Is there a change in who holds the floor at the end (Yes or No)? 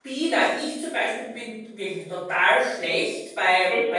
No